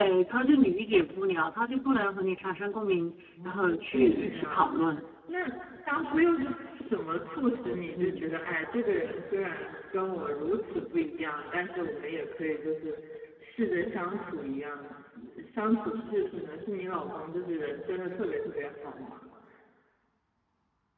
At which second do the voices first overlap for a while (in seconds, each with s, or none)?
3.4 s